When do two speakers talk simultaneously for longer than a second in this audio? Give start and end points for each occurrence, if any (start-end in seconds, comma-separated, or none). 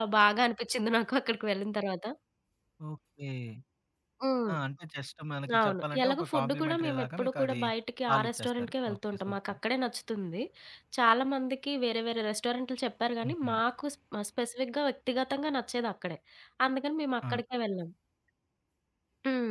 5.6-7.6, 8.1-9.6